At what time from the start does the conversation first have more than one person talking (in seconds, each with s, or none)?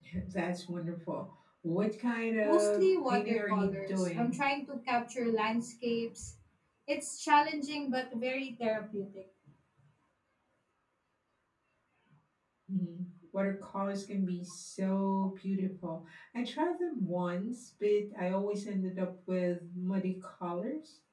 2.4 s